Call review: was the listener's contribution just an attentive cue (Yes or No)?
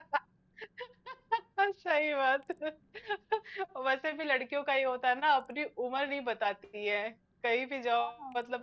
Yes